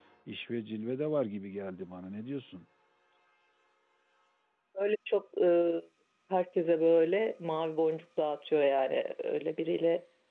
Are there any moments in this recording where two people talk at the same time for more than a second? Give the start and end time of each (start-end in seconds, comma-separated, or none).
none